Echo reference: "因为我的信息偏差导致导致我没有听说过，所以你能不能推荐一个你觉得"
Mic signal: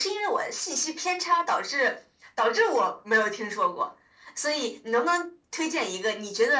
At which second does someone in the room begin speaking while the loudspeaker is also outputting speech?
none

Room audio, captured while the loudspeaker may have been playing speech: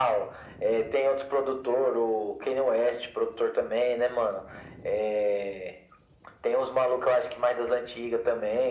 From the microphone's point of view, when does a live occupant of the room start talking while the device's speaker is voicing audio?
none

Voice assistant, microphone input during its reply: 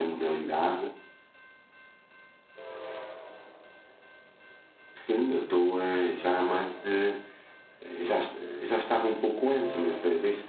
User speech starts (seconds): none

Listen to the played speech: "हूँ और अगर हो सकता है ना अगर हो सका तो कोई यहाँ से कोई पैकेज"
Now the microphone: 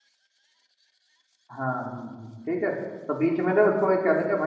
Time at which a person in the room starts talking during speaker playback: 1.5 s

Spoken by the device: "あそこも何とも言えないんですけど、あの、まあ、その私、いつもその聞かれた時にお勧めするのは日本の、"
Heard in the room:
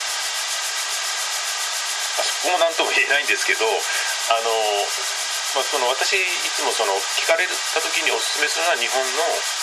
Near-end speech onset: none

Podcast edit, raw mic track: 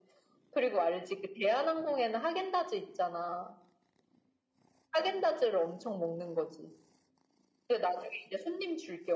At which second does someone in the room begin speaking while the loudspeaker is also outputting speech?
none

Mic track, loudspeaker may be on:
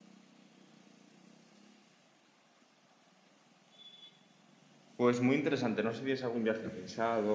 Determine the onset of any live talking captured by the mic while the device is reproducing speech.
5.0 s

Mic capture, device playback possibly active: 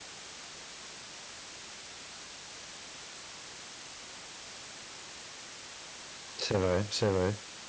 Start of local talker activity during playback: 6.4 s

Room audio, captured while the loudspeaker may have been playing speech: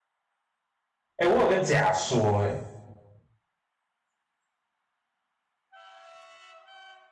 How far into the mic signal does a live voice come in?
1.1 s

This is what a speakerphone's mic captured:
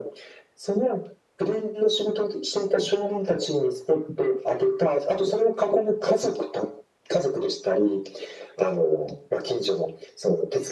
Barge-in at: none

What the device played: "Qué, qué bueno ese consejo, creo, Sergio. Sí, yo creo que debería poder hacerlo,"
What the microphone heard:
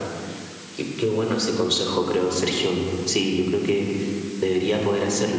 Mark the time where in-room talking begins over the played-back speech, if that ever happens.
none

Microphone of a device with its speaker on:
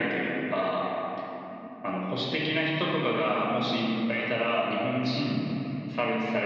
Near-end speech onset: none

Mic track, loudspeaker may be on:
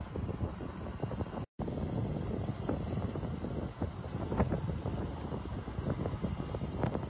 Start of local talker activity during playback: none

